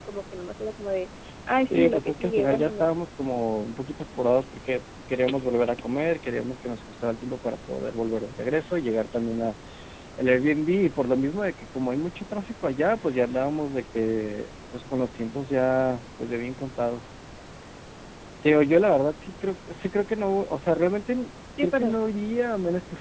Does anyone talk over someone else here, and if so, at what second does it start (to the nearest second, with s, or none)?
2 s